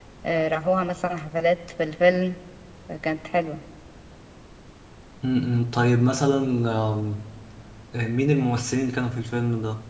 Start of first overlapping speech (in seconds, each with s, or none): none